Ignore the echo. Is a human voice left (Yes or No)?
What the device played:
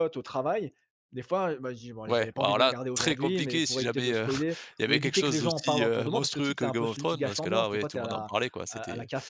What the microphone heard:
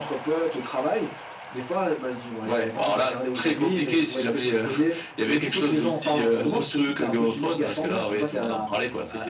No